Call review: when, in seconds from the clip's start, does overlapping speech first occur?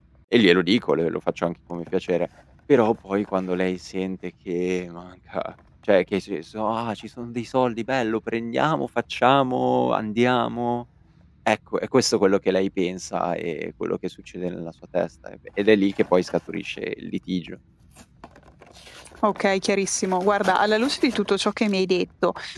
none

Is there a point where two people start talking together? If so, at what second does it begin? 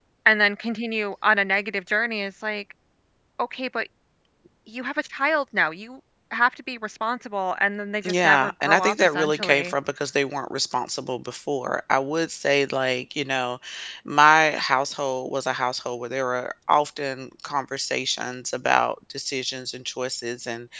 8 s

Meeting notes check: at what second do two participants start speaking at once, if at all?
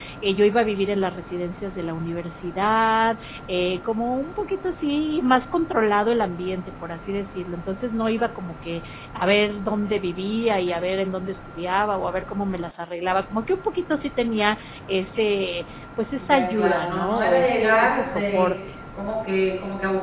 16 s

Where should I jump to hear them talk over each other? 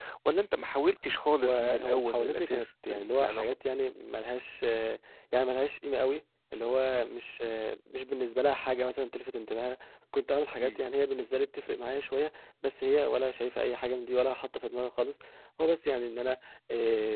1 s

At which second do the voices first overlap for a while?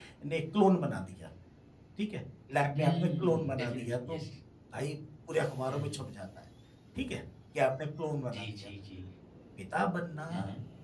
3 s

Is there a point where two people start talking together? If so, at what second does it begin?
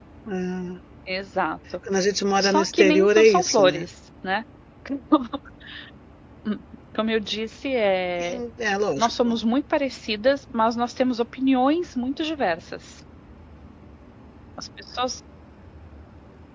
2 s

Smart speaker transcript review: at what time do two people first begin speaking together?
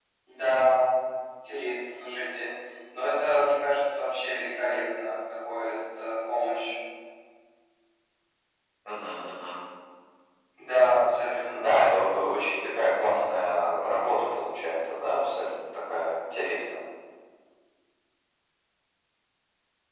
none

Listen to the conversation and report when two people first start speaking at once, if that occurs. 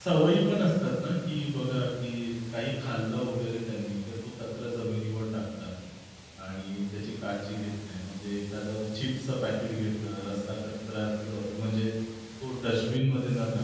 none

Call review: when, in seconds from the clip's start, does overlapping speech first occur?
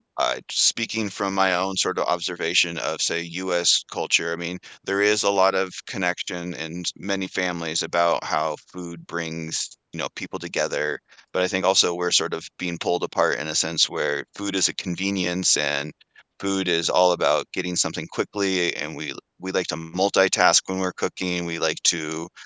none

